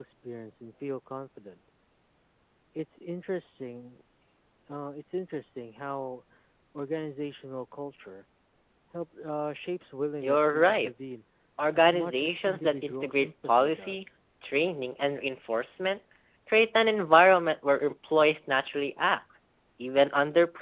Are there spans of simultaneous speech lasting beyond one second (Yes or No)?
Yes